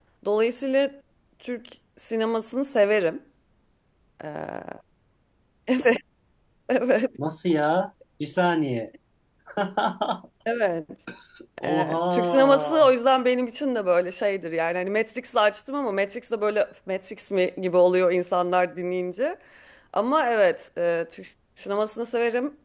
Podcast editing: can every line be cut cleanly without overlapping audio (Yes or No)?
No